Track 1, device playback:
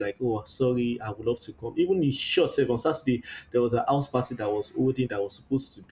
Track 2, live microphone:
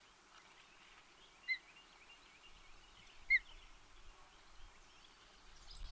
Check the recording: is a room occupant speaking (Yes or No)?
No